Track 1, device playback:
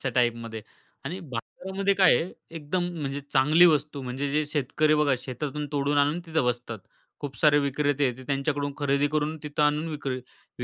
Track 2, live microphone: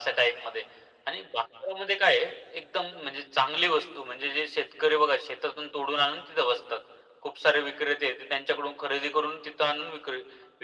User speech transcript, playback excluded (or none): none